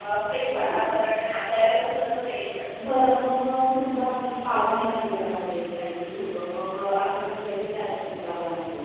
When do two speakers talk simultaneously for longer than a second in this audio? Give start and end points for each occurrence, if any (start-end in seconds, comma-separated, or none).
none